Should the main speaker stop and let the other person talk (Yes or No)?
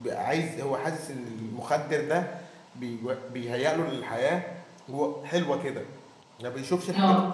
No